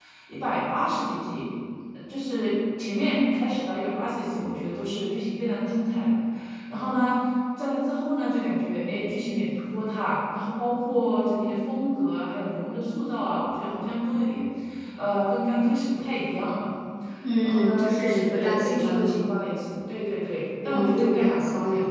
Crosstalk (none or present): present